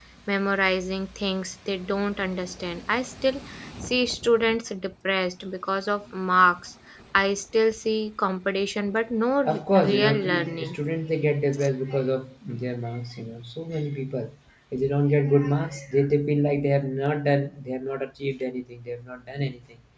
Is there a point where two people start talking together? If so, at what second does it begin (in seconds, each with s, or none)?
9.4 s